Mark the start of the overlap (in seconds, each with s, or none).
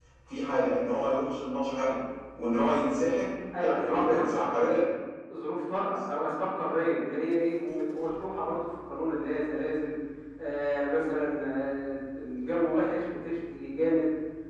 3.5 s